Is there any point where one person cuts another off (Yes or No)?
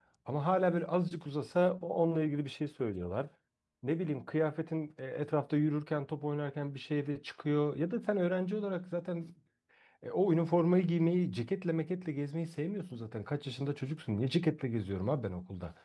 No